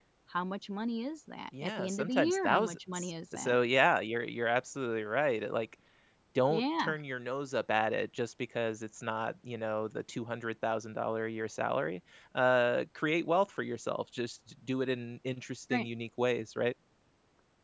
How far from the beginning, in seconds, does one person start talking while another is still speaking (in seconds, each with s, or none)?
1.6 s